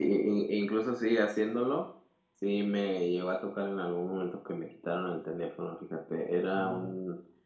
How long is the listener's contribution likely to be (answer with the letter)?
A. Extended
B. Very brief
B